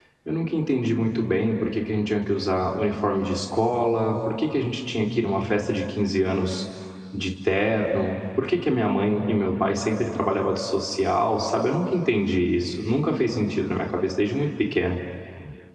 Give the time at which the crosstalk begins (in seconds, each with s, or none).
none